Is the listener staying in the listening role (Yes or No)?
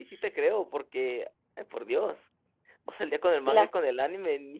Yes